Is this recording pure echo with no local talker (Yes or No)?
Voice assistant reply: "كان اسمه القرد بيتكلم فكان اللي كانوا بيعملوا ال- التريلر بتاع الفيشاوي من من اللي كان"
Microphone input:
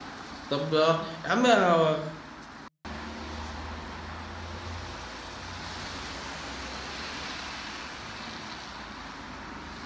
No